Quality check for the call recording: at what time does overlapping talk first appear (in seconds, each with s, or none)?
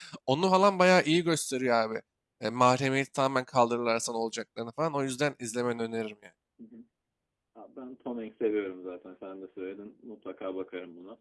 none